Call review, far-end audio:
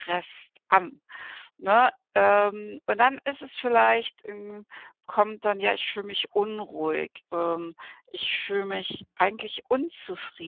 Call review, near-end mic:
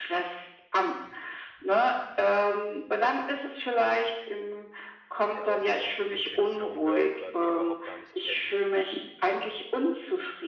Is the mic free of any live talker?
No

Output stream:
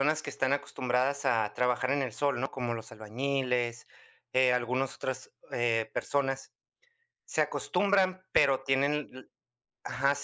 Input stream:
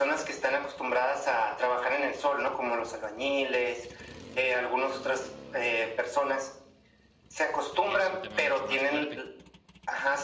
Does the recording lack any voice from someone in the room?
No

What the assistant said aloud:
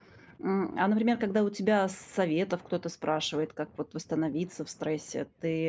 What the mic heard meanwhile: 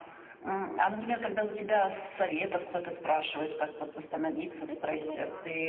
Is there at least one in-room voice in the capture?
Yes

